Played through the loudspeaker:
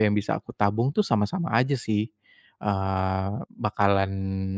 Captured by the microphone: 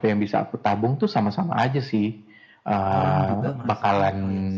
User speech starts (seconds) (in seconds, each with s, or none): 2.9 s